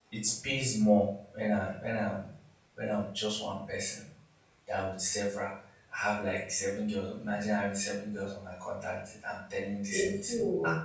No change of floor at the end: Yes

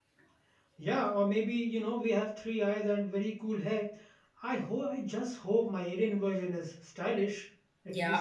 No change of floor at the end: No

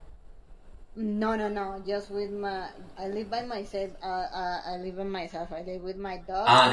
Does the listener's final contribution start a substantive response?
Yes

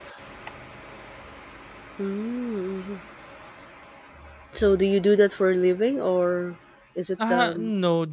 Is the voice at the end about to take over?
Yes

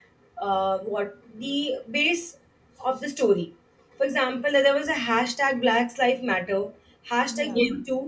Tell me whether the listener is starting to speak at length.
No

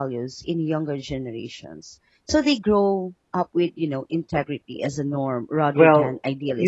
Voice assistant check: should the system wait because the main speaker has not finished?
No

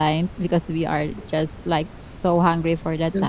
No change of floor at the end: Yes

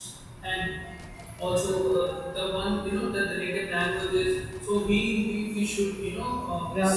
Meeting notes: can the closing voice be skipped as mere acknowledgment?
No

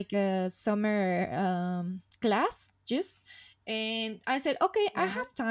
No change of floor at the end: Yes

